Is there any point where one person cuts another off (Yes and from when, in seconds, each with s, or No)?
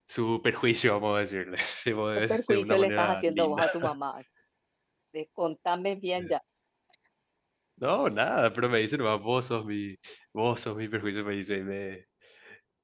Yes, from 2.3 s